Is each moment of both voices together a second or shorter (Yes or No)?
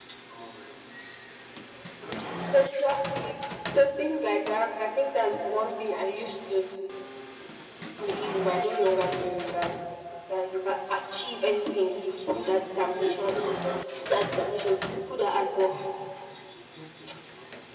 No